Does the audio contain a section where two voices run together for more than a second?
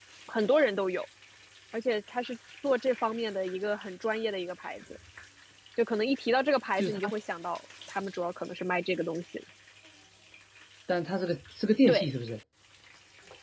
No

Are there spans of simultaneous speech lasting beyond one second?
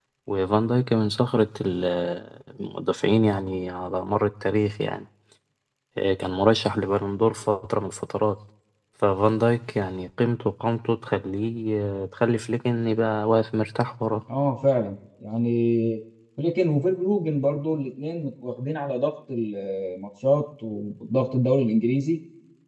No

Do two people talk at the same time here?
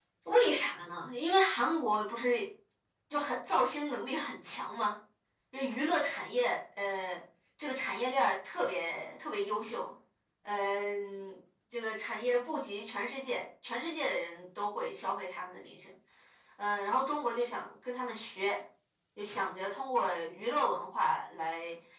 No

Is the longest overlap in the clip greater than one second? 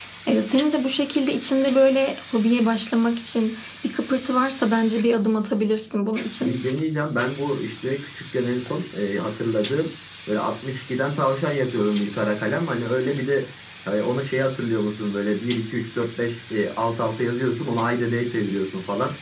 No

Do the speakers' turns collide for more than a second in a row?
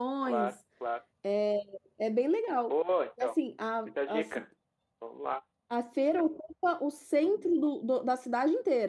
No

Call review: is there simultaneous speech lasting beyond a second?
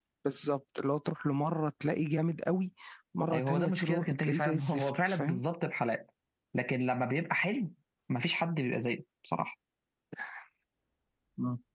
Yes, from 3.3 s

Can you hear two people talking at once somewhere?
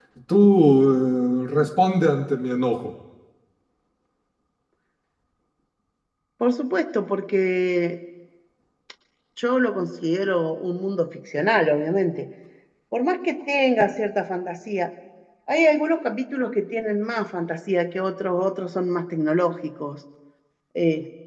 No

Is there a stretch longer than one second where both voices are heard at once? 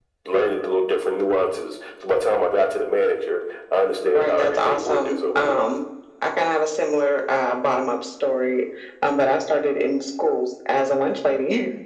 Yes, from 4.1 s

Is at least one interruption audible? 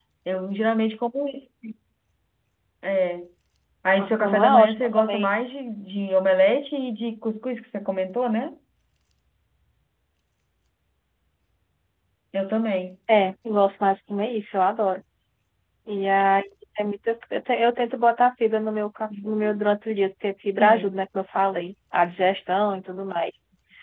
Yes, from 4.0 s

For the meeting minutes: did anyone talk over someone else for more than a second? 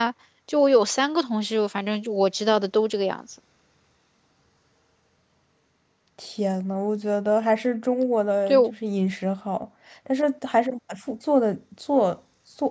No

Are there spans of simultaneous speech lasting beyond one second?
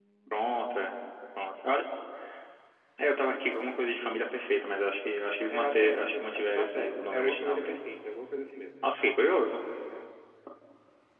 Yes, from 5.5 s

